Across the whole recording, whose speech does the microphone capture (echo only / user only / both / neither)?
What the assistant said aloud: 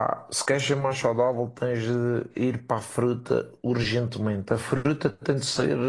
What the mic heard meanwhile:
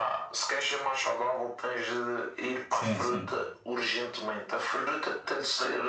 both